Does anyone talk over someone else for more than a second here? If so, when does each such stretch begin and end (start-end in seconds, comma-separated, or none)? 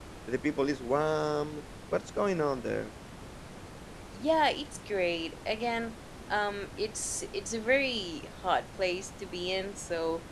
none